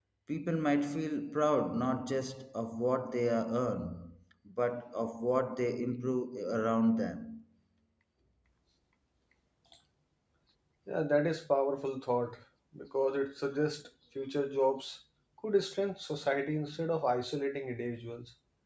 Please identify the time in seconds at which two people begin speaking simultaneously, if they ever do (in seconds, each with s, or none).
none